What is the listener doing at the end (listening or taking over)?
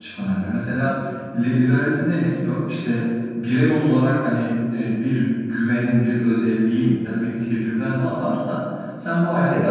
listening